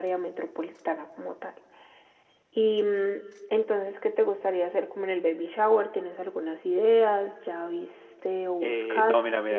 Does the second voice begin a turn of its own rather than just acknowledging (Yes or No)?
Yes